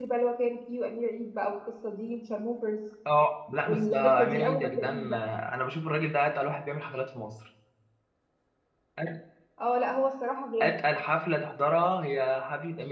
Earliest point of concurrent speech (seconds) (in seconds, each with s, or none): 3.6 s